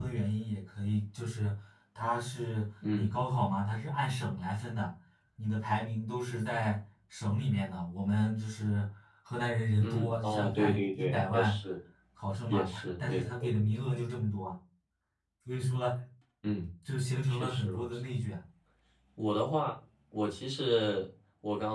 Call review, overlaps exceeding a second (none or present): present